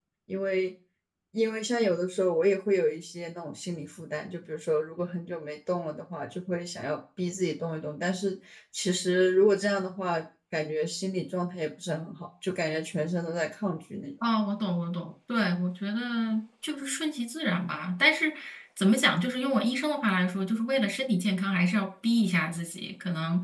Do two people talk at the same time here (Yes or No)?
No